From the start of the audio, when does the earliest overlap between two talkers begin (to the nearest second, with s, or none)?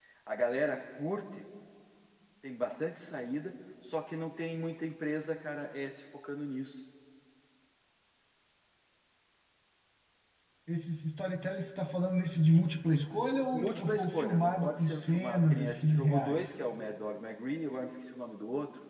13 s